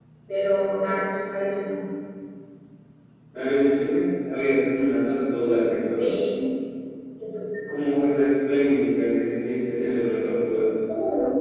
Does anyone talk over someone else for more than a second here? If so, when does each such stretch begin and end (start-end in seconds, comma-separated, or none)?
none